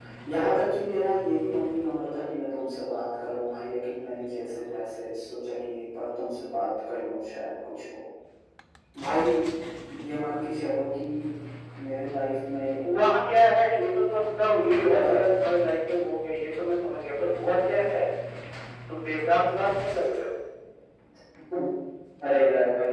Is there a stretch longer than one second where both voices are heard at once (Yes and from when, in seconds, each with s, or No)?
No